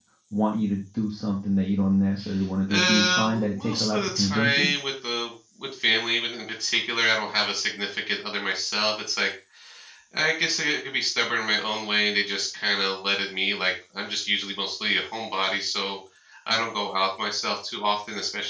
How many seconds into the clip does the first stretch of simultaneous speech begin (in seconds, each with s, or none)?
2.7 s